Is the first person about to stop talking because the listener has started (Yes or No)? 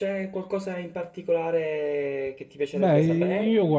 Yes